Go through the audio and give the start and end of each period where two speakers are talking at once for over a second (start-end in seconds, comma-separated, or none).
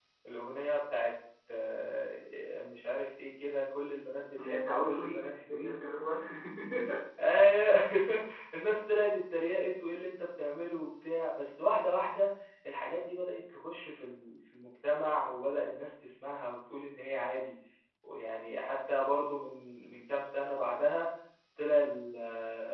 4.4-5.8